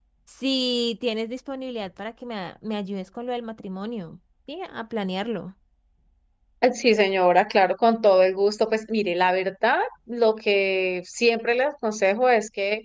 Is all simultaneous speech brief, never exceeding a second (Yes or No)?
Yes